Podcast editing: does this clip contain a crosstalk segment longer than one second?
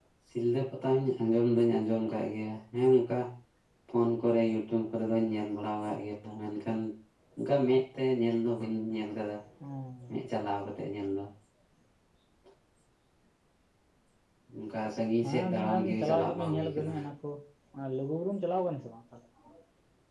Yes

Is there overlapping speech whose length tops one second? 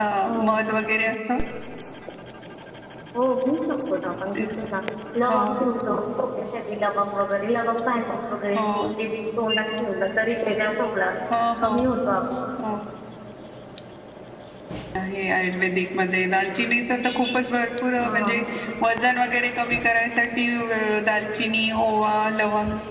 No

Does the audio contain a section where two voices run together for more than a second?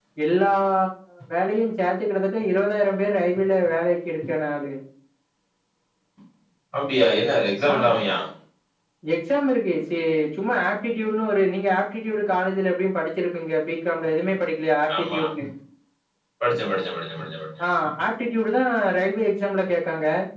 No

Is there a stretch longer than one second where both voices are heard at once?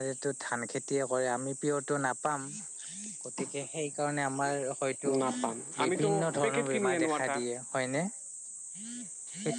Yes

